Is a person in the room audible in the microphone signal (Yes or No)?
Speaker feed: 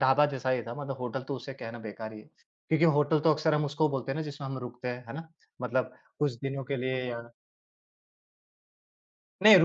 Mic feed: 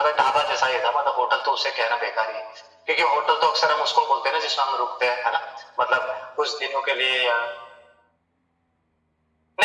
No